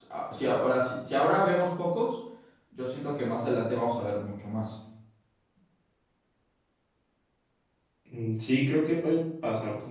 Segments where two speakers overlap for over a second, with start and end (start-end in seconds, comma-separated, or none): none